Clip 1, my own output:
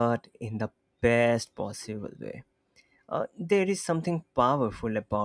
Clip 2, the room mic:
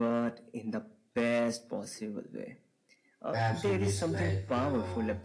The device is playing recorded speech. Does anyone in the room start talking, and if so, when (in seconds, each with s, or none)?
3.3 s